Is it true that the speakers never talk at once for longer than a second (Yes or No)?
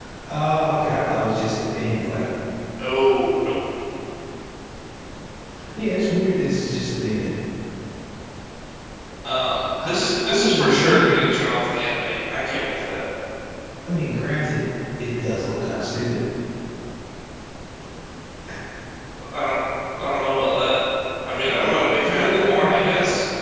No